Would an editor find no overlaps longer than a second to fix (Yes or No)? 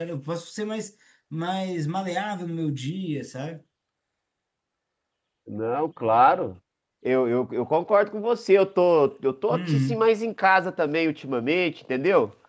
Yes